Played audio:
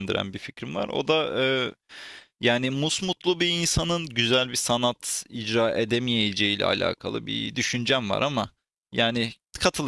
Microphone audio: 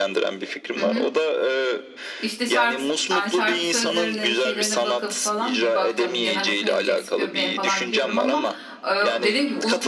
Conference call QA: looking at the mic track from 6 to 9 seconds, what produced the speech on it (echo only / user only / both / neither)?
both